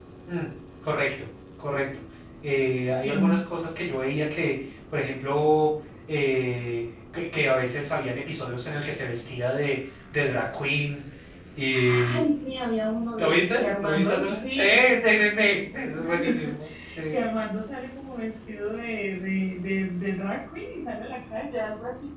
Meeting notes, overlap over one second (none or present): present